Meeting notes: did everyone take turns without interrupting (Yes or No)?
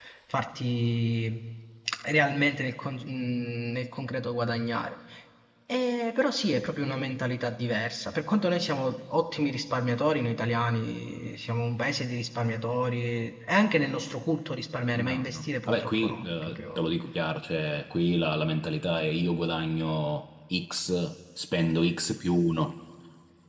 No